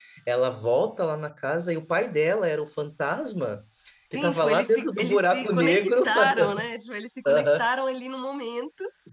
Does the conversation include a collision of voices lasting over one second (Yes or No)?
Yes